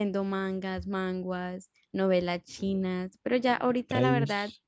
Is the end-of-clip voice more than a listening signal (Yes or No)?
No